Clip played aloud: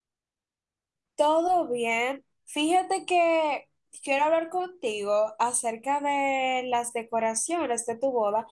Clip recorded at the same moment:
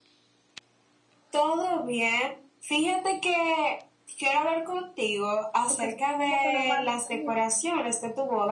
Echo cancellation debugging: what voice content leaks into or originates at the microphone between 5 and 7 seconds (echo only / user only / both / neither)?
both